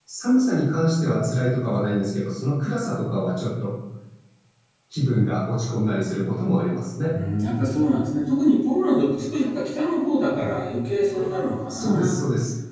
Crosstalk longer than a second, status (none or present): none